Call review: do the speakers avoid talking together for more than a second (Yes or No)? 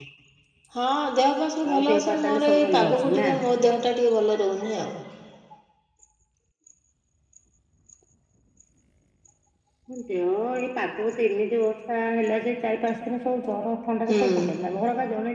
No